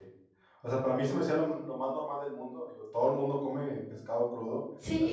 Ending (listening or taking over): listening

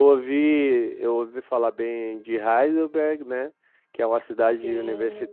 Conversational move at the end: listening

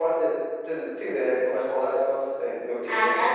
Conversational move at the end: taking over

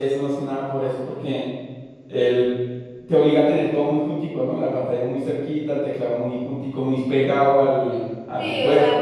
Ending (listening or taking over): taking over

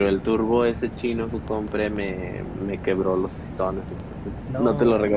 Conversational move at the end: listening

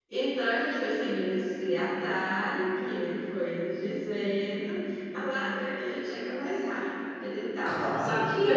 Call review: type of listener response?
taking over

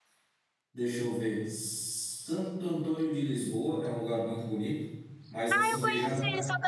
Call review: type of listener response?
taking over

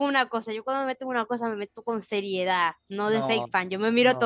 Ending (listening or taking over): taking over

